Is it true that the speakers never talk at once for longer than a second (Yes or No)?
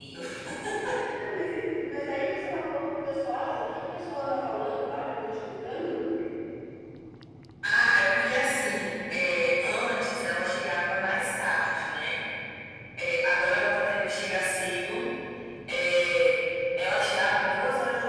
Yes